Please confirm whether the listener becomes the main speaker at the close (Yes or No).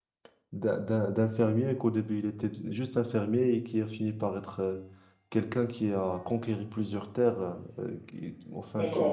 Yes